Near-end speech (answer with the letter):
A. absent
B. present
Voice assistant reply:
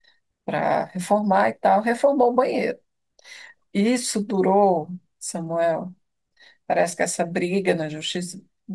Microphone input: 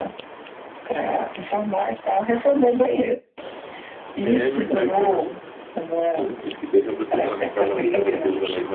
B